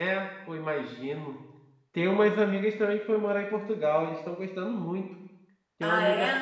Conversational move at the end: listening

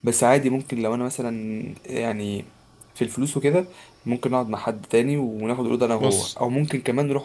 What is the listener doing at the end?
listening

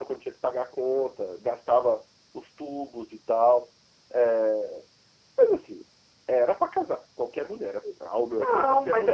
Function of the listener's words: taking over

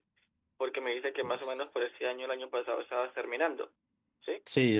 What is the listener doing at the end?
taking over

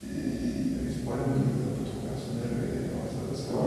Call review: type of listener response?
taking over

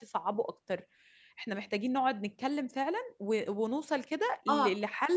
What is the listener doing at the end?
listening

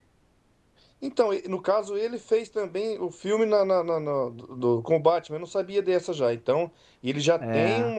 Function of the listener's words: listening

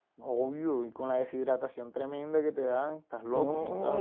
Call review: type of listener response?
taking over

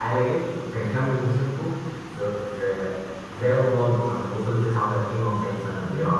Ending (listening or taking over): taking over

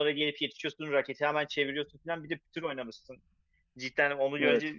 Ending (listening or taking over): listening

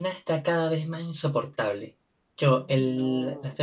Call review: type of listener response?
listening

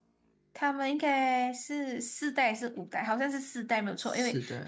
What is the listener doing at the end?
listening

